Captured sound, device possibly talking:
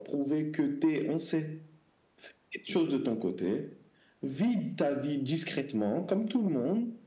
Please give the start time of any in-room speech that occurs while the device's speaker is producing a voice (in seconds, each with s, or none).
none